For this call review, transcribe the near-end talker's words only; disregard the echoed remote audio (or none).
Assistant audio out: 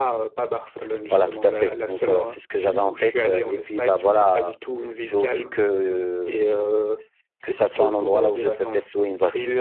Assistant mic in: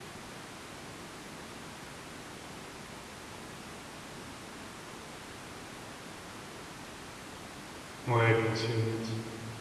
Ouais, bien sûr, bien sûr.